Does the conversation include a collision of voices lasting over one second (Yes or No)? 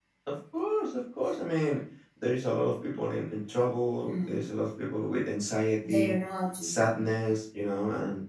No